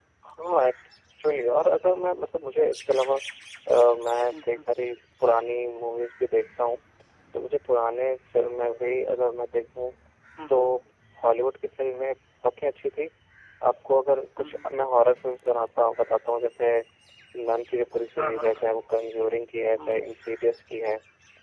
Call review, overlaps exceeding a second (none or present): none